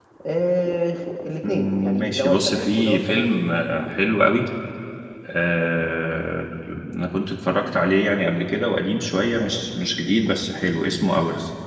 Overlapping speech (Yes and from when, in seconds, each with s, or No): Yes, from 1.5 s